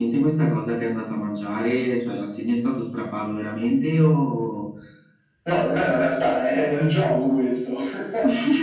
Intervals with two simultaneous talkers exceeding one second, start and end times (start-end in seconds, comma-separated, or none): none